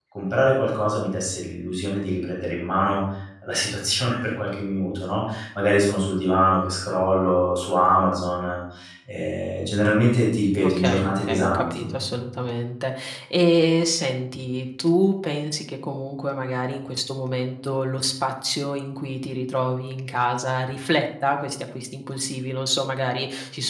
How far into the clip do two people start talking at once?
10.5 s

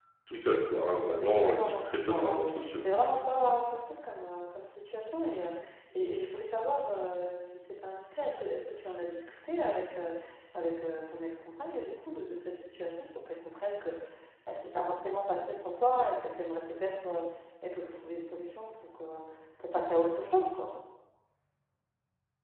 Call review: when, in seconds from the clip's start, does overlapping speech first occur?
1.4 s

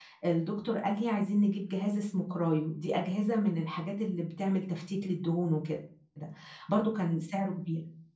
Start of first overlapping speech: none

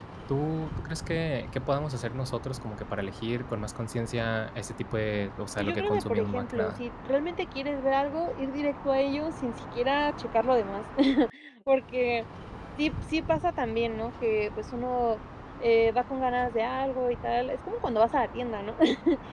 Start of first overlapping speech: 5.6 s

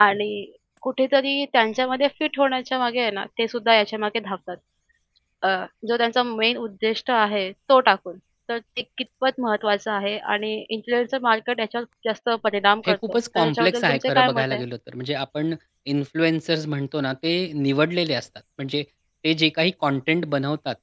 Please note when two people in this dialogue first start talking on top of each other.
12.8 s

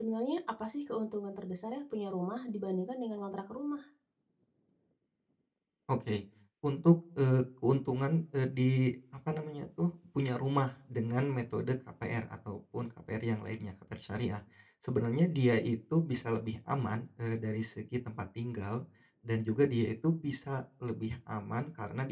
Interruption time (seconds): none

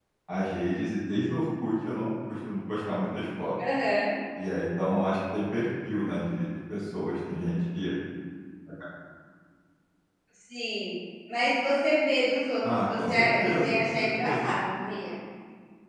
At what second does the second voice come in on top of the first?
12.6 s

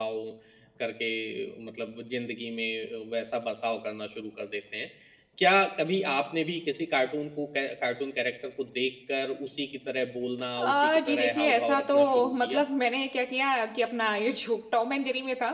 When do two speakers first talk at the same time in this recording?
10.6 s

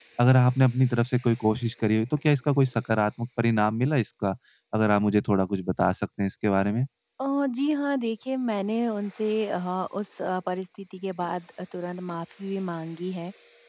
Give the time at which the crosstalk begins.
none

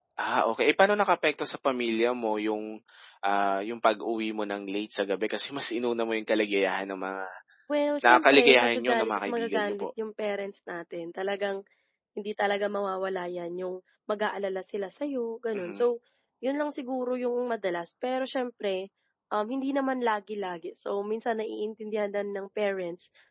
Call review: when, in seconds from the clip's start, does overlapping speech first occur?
8.0 s

